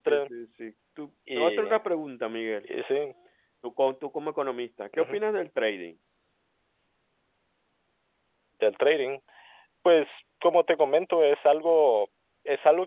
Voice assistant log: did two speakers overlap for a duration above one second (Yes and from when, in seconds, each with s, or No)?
No